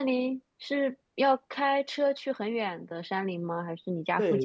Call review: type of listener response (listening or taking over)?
taking over